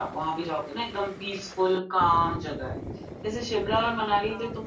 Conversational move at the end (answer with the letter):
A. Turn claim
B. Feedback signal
B